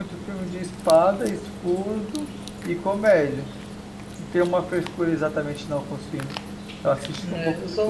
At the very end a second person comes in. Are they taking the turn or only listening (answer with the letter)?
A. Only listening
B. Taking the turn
B